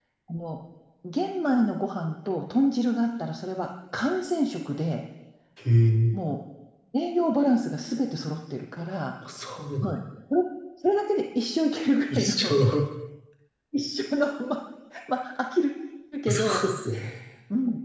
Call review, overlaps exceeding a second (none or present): none